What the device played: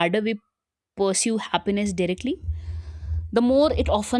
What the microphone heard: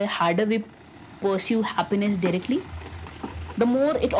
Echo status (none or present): present